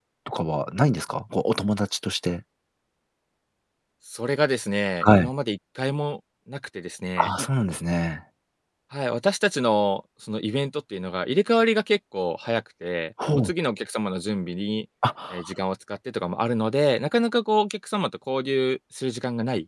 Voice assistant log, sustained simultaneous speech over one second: none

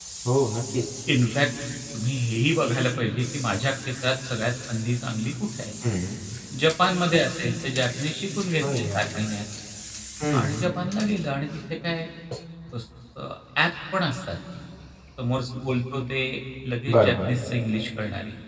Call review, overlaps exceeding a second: none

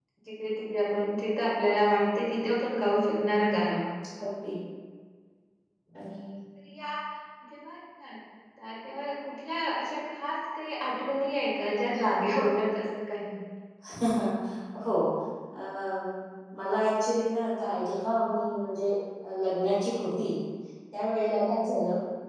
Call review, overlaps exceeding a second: none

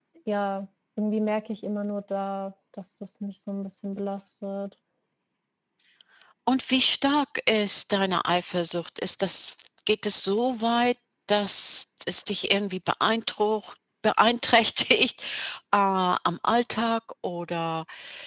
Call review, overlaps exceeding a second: none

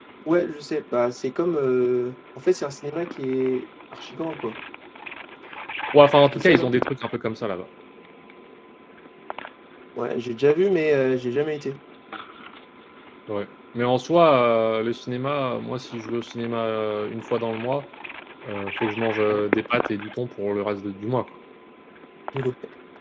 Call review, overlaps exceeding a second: none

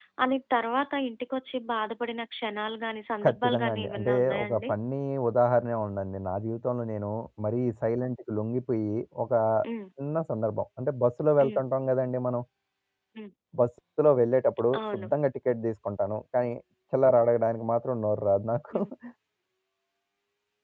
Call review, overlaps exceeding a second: present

